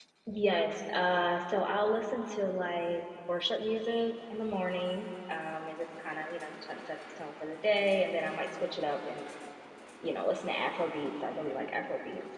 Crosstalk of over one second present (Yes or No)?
No